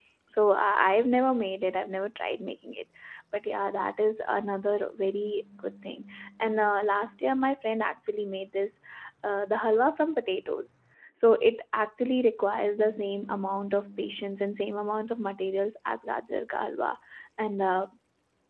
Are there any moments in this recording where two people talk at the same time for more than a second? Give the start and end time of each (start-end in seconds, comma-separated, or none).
none